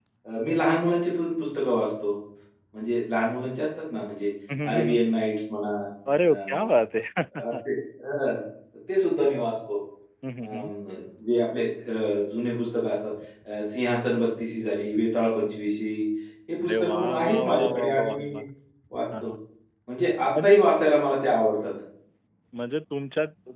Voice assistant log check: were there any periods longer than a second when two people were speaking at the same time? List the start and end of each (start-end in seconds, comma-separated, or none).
16.6-18.3